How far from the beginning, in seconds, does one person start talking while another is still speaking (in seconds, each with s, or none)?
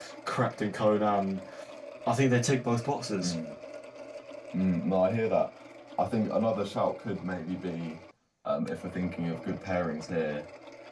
none